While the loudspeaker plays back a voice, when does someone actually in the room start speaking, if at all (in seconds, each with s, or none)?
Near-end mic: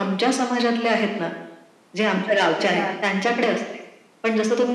2.6 s